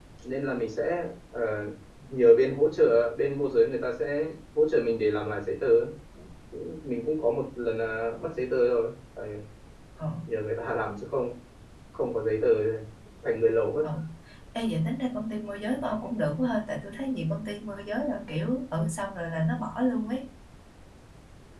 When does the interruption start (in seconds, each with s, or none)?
none